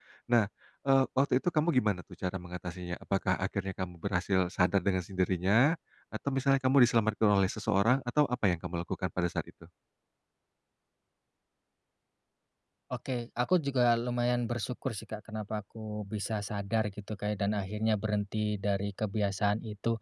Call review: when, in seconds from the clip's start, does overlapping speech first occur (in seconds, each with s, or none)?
none